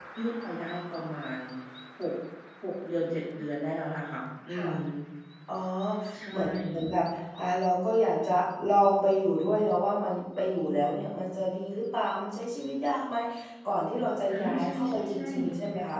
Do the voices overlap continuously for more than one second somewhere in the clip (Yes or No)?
Yes